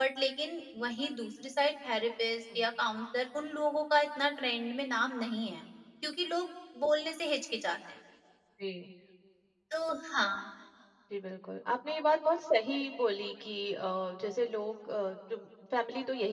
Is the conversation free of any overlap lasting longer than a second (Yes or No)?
Yes